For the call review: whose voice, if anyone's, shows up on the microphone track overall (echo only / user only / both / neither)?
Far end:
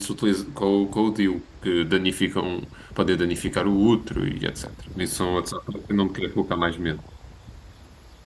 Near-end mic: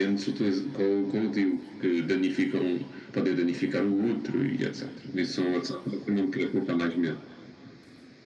echo only